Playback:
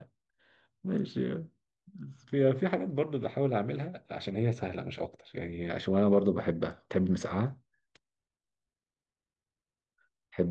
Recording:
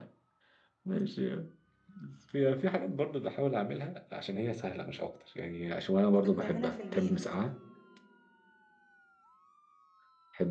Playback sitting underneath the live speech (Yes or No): No